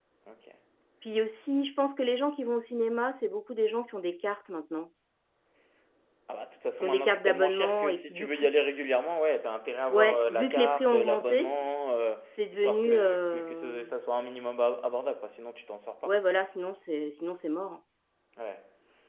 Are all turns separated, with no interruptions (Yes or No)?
No